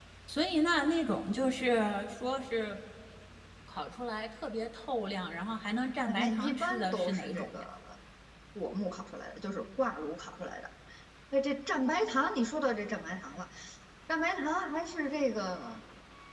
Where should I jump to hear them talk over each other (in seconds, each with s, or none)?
6.1 s